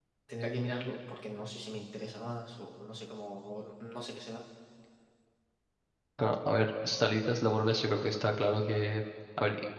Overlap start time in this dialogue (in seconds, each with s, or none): none